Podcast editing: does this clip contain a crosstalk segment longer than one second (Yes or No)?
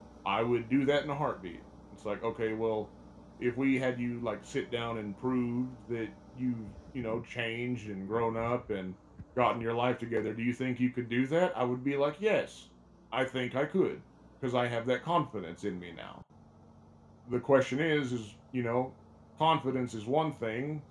No